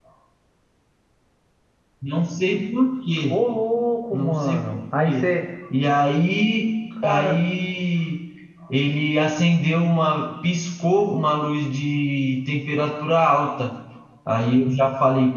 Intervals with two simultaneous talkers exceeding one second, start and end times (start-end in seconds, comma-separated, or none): 4.1-5.3